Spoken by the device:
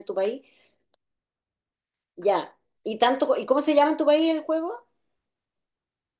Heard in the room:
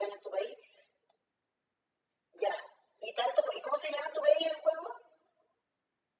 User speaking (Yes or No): No